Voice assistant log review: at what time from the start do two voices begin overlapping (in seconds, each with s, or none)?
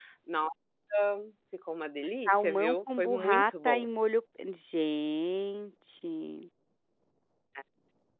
2.3 s